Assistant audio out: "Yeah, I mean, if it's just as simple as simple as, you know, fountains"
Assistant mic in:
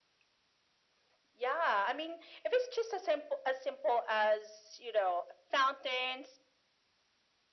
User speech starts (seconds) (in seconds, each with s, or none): none